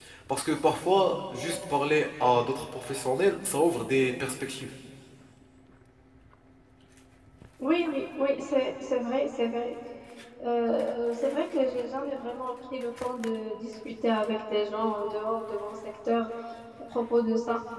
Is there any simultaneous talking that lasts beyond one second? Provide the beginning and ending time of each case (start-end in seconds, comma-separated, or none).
none